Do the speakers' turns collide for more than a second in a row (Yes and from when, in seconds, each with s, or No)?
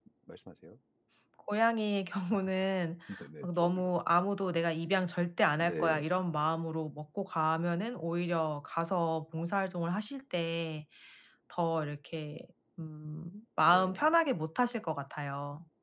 No